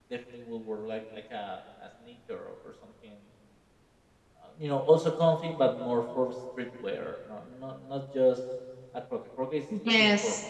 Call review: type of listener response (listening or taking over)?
taking over